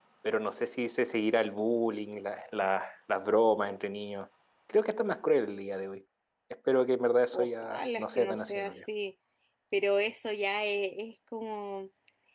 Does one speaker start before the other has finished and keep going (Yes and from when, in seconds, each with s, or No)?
Yes, from 7.3 s